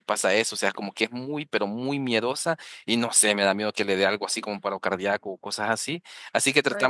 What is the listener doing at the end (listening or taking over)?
listening